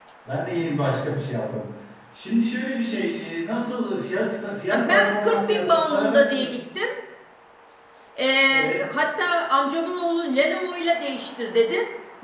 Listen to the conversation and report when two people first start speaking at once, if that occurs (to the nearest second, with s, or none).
5 s